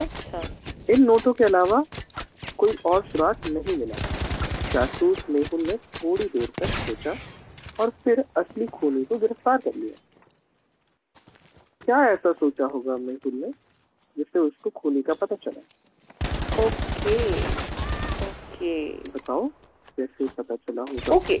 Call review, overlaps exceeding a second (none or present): none